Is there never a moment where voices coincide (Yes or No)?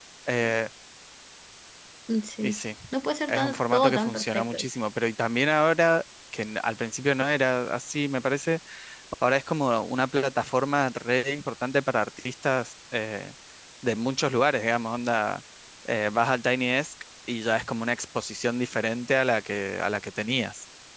No